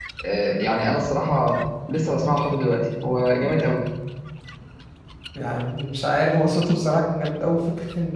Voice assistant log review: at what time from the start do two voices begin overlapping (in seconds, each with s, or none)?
none